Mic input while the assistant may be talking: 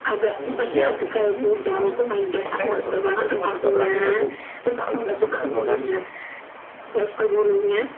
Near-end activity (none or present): present